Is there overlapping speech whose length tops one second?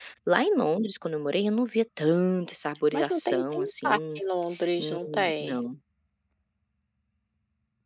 Yes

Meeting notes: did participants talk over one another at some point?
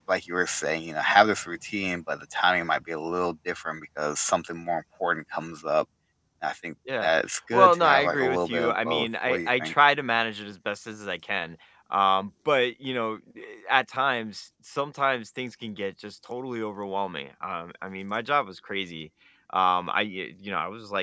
Yes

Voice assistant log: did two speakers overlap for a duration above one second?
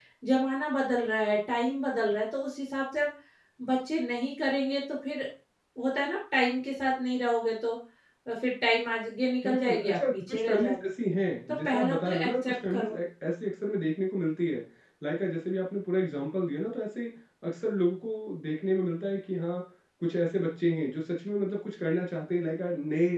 Yes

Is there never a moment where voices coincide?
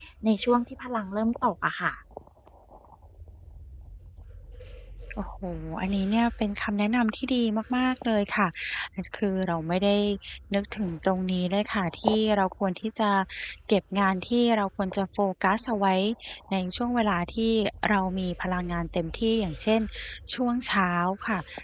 Yes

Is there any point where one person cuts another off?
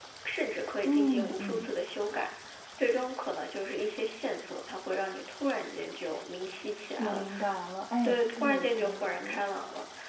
Yes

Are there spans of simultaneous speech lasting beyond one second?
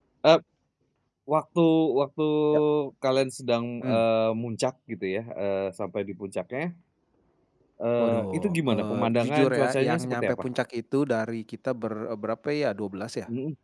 Yes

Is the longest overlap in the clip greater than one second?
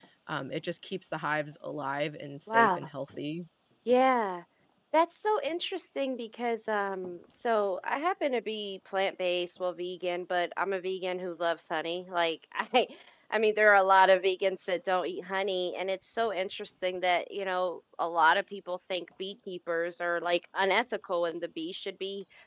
No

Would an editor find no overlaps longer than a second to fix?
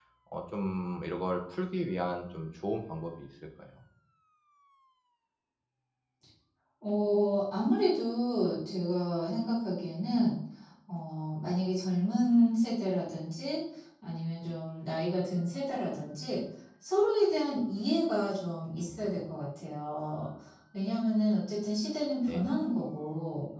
Yes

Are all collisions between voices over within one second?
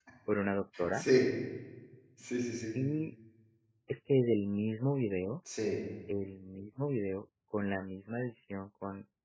Yes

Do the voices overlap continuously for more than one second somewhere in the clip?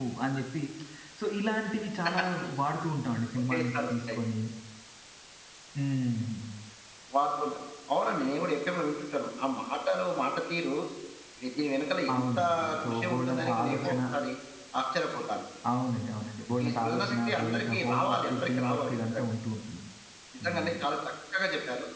Yes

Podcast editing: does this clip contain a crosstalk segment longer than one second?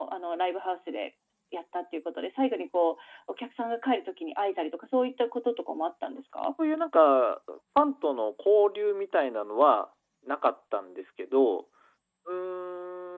No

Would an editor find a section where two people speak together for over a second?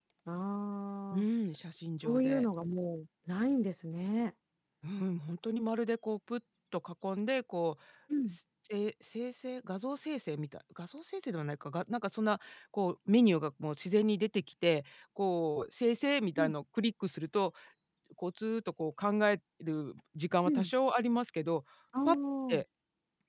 No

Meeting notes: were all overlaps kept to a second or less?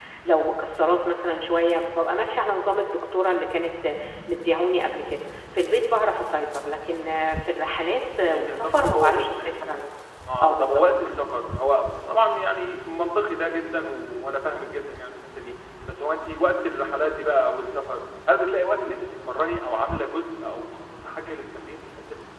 No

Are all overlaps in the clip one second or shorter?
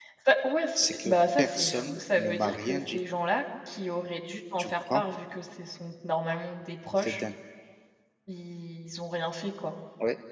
No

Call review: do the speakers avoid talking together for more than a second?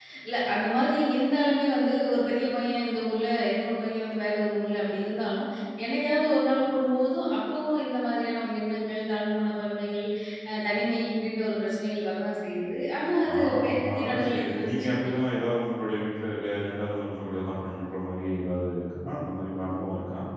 No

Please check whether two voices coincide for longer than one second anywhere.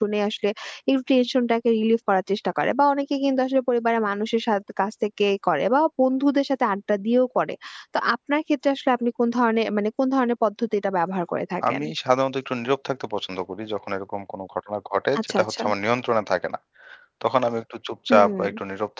No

